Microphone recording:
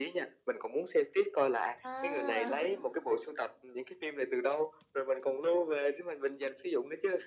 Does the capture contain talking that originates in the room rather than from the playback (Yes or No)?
Yes